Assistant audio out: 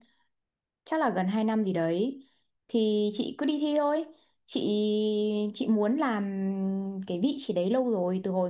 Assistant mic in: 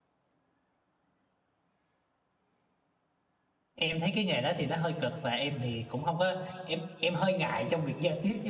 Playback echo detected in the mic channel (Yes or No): No